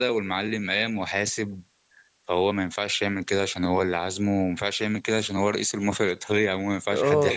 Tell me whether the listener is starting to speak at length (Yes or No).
Yes